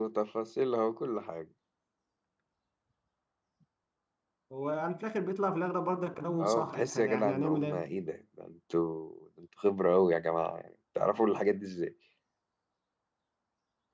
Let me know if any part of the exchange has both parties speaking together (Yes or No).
Yes